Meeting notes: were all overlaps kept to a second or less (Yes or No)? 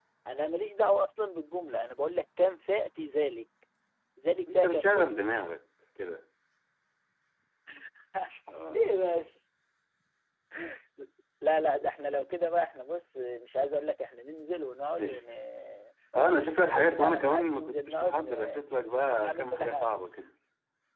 No